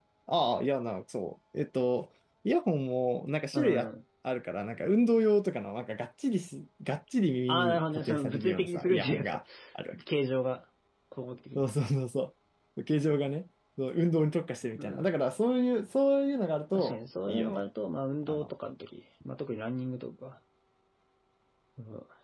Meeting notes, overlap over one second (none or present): present